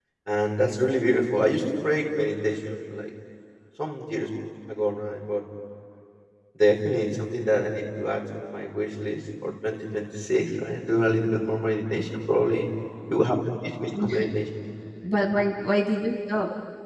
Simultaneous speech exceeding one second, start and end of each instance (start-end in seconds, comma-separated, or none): none